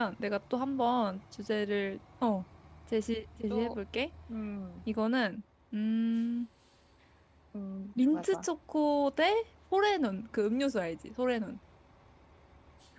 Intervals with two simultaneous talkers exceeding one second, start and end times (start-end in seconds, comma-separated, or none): none